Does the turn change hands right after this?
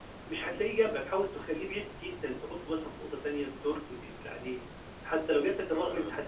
No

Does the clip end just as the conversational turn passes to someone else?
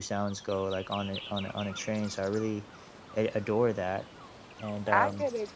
Yes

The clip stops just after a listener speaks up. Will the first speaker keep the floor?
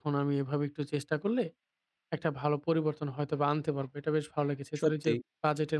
Yes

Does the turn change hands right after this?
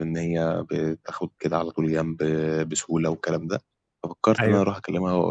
No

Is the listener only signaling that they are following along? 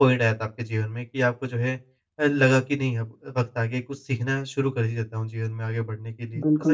No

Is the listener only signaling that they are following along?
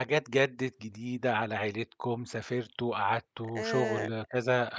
Yes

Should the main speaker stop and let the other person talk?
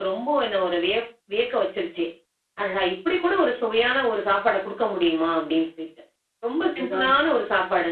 No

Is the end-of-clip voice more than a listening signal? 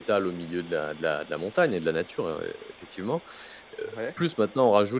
No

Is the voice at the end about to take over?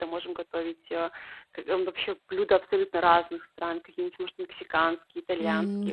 No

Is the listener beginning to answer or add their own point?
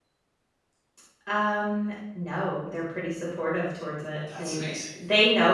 No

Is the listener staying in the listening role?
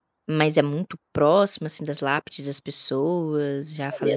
No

